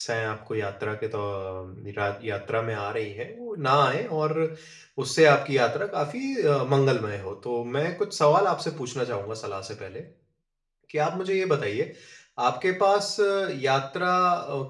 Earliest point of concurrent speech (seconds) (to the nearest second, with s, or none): none